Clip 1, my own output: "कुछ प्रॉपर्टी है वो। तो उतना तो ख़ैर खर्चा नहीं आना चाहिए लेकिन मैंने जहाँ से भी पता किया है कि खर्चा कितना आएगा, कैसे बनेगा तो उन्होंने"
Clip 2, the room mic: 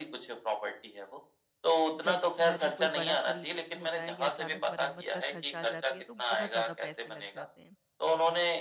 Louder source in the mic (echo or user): echo